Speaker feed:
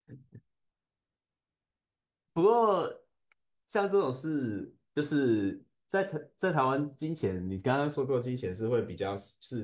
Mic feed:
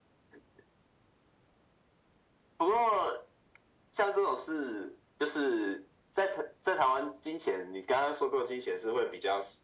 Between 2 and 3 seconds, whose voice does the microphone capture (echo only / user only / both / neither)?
echo only